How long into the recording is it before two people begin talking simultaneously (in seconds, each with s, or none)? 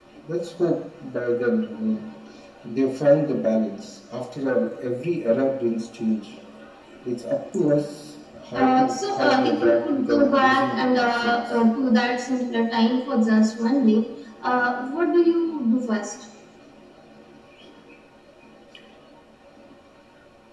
8.3 s